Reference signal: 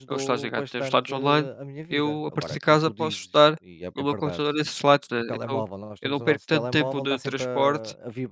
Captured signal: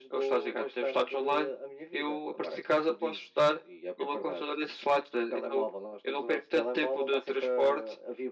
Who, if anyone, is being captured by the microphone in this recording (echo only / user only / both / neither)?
echo only